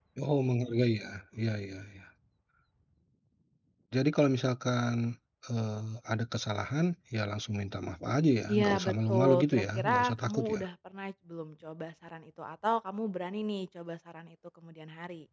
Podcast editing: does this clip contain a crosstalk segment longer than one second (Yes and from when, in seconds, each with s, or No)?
Yes, from 8.5 s